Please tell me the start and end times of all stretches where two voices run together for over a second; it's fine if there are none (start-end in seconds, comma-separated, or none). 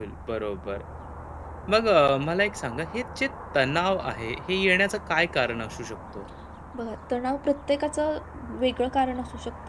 none